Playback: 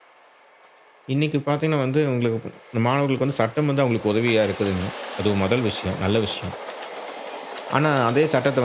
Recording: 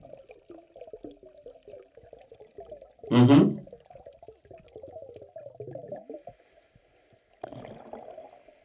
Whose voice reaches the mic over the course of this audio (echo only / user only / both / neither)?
user only